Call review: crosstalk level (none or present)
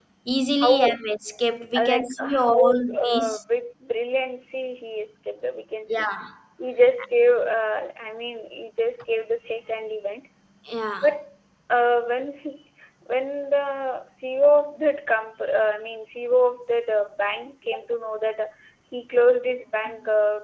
present